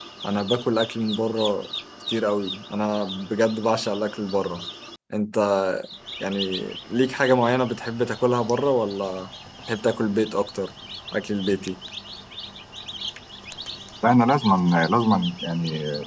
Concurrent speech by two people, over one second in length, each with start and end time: none

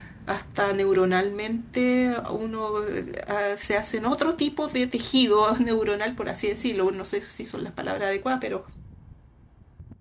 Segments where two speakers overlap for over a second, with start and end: none

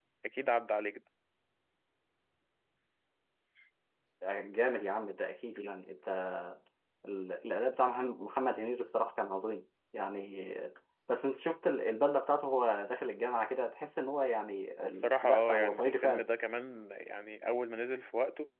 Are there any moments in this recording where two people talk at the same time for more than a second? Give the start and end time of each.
14.8-16.2

